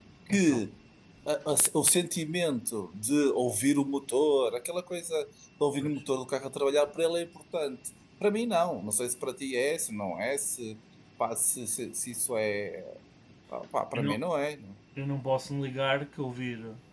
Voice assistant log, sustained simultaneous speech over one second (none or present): none